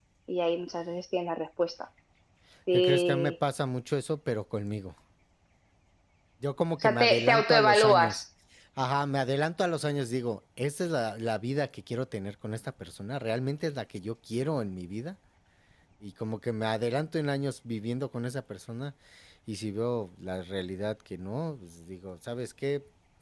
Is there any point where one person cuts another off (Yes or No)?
Yes